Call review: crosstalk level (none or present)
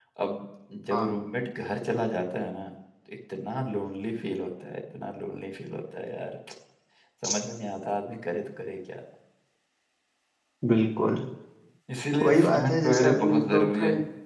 present